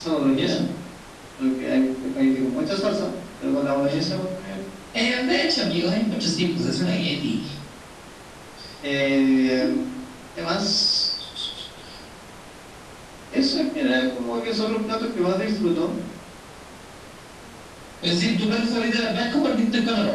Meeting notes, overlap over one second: none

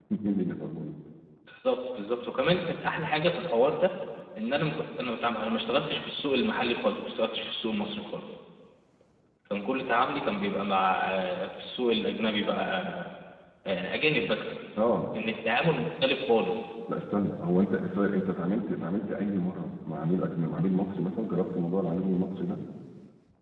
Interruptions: none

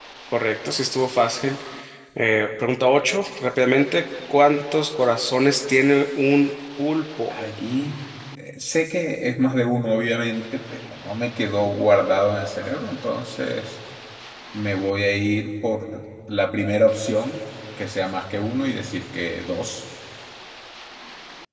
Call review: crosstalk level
none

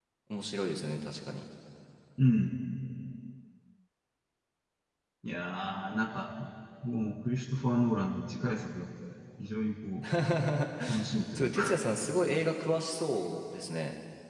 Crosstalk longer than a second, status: none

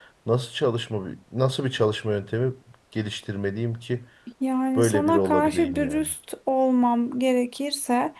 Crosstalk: present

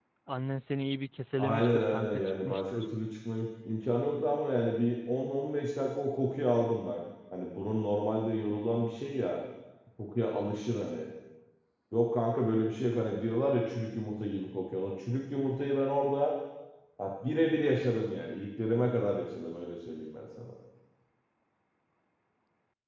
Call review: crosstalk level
present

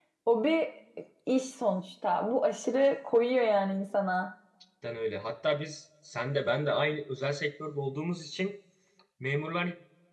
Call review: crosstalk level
none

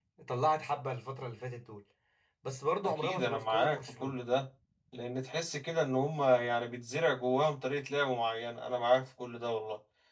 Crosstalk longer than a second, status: present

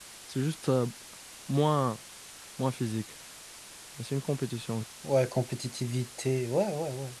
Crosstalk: none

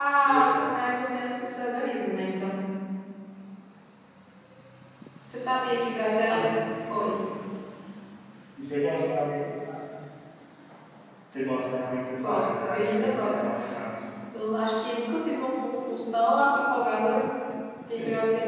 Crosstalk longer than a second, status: present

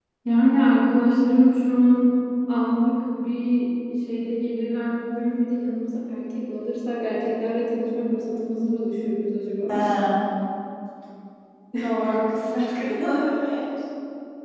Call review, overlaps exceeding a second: none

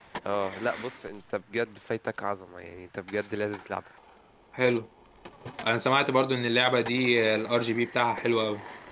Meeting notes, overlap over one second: none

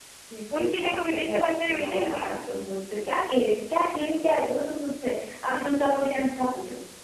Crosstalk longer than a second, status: present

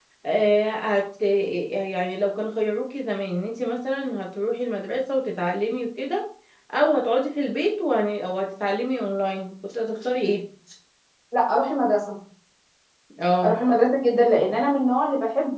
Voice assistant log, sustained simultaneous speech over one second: none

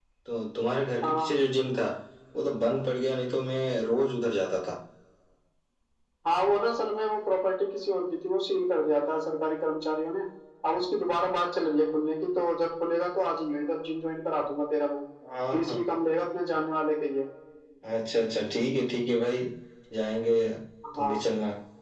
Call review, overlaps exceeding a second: none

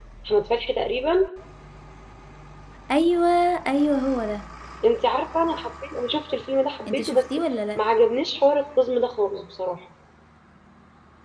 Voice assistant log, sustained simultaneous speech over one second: none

